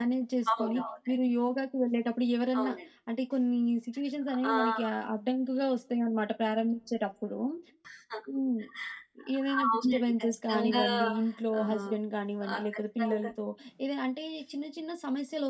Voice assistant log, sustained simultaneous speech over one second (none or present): present